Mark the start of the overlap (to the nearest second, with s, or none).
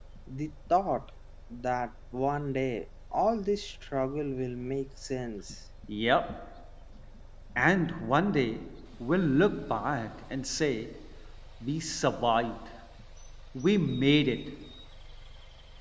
none